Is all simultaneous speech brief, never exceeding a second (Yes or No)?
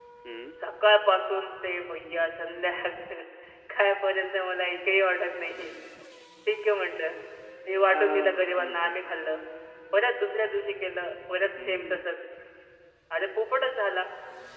No